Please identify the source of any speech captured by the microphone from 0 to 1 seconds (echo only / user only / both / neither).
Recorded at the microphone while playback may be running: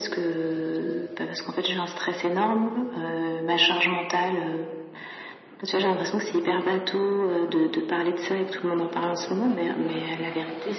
echo only